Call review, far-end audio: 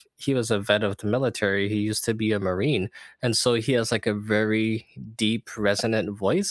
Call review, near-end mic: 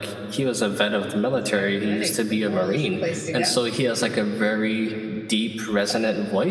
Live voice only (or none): It's very funny. The mall is a place to go.